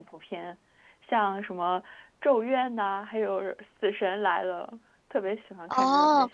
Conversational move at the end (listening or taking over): taking over